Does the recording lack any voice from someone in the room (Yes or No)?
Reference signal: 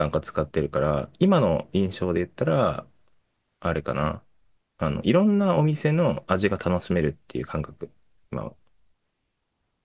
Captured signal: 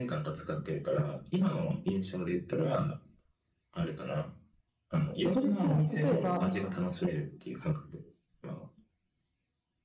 No